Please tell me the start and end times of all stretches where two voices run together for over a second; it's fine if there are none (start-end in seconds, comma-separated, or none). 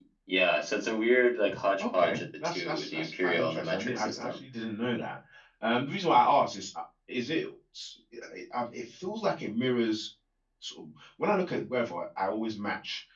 1.8-4.4